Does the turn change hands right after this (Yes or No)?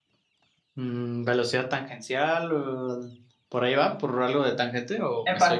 Yes